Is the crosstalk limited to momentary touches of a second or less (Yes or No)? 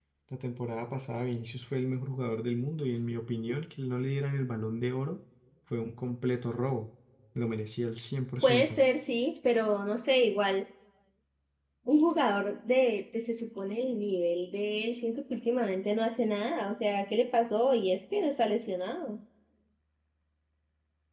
Yes